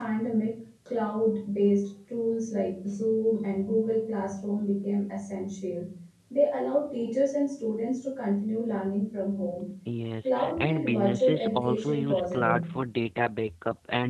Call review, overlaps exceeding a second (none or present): present